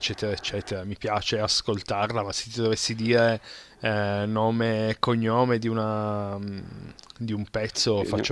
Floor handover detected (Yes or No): No